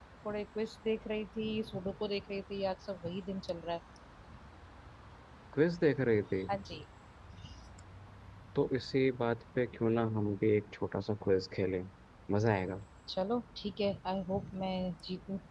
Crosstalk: none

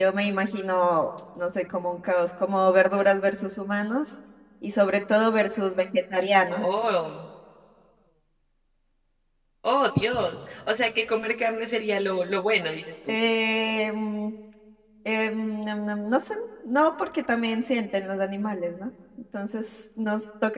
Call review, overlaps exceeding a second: none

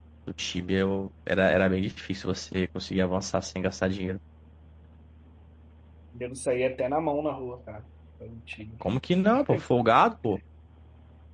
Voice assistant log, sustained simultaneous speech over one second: none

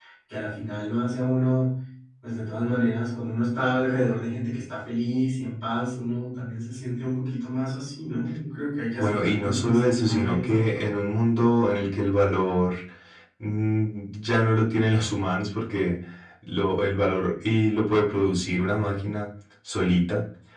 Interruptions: present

